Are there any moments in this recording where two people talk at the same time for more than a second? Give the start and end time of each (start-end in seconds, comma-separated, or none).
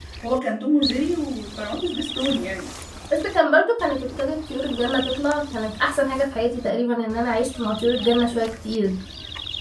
none